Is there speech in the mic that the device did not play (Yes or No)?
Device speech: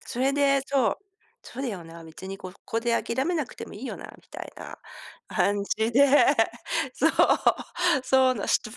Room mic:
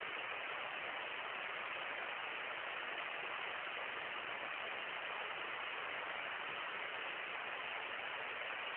No